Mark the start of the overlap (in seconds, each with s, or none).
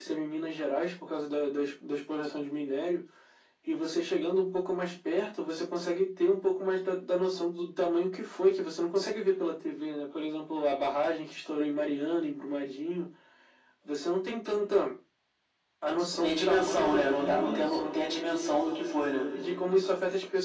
16.1 s